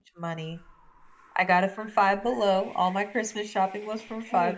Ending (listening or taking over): taking over